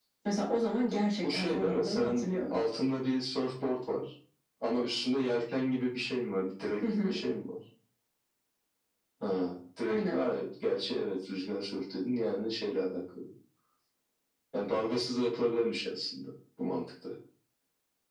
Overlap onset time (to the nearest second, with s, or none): 1 s